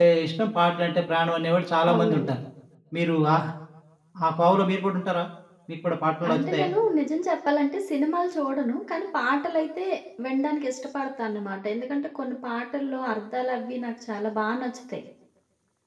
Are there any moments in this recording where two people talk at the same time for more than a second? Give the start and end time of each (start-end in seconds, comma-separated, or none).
none